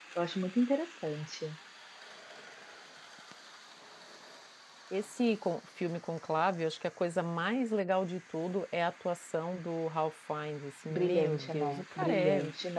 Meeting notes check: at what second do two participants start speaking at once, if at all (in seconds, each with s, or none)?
10.9 s